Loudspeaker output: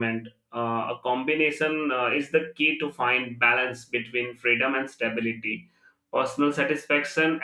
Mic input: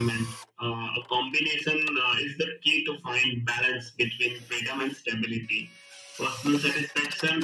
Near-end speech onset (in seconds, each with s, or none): none